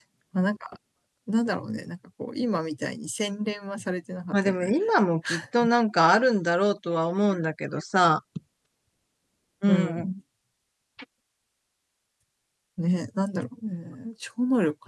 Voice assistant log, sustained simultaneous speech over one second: none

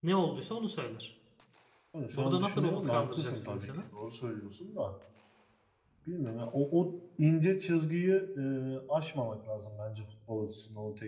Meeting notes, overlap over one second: present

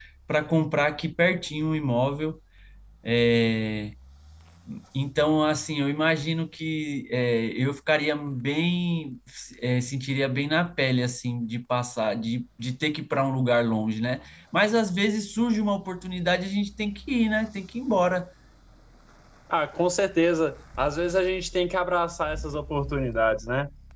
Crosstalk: none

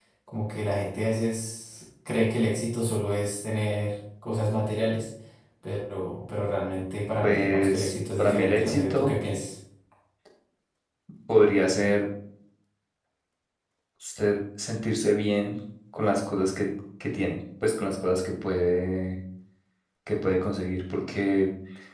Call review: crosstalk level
present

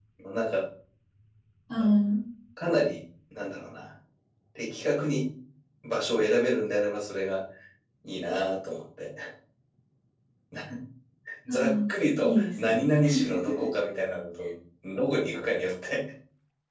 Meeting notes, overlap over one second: present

